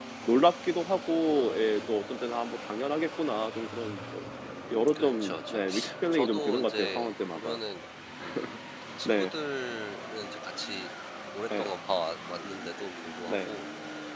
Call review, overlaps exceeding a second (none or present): present